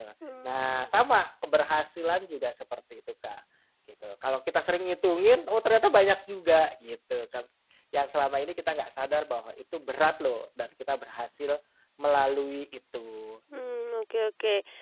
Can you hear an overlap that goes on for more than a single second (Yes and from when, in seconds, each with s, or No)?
No